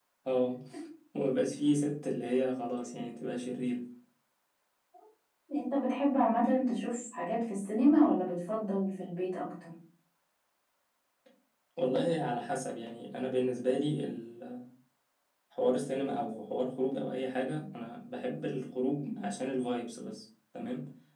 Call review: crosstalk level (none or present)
none